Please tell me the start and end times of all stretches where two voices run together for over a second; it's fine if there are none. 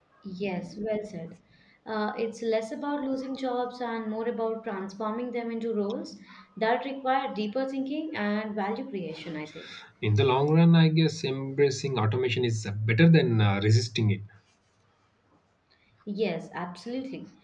none

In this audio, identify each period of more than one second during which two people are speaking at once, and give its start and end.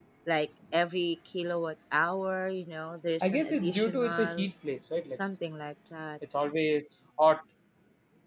3.2-4.5

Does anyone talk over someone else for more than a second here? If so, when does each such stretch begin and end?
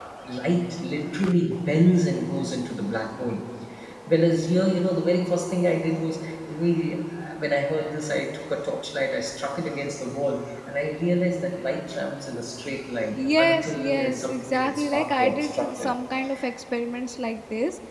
13.2-15.9

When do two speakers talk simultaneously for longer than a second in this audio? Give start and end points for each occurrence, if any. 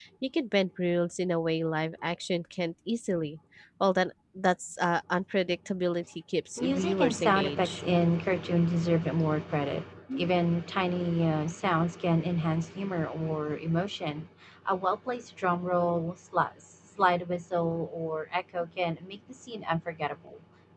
6.6-7.8

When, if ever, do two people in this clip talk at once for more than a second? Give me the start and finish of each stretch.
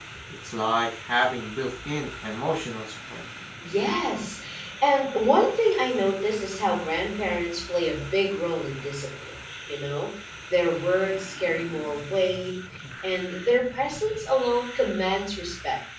none

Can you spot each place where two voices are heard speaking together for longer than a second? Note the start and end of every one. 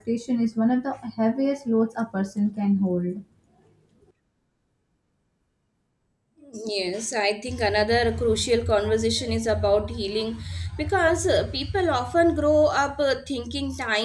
none

